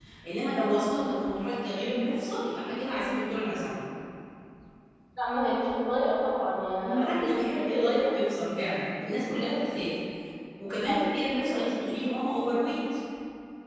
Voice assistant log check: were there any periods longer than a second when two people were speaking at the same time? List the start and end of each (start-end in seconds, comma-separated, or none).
6.8-8.2